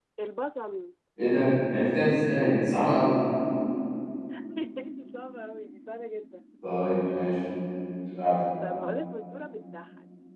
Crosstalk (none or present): none